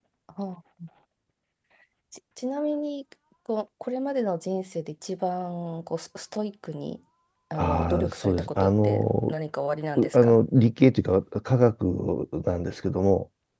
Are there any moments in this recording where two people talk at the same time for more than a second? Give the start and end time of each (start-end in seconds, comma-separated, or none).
7.5-9.3